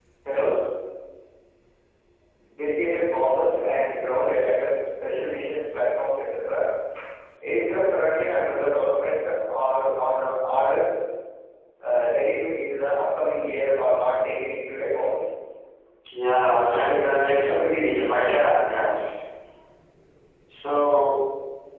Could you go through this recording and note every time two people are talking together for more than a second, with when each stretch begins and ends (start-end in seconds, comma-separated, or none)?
16.5-18.7